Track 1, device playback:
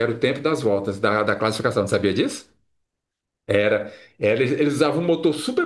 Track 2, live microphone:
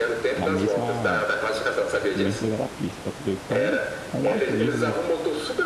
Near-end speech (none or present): present